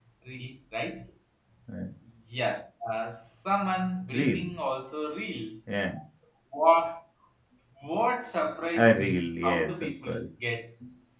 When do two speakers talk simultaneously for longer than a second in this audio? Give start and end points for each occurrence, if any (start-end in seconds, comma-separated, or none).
8.7-10.2